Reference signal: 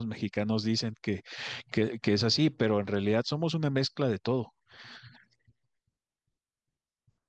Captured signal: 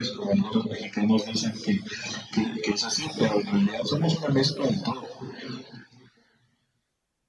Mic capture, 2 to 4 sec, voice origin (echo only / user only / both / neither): echo only